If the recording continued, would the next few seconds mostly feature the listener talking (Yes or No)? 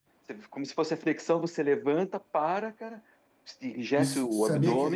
Yes